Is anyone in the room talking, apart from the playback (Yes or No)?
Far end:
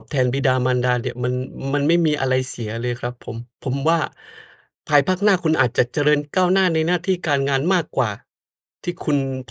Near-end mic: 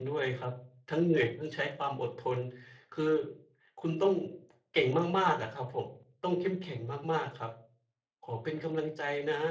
Yes